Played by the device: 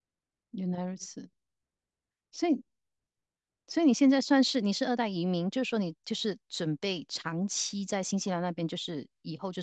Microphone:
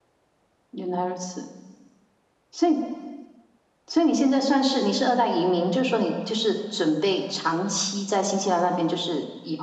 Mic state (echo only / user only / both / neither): echo only